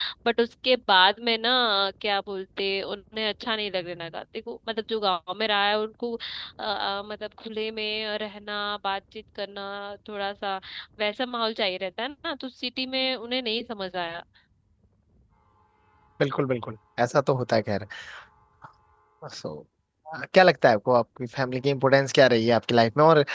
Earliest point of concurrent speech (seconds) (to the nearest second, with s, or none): none